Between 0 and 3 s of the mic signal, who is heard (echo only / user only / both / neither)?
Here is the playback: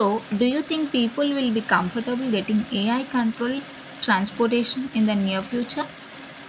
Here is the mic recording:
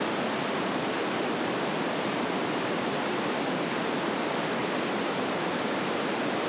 neither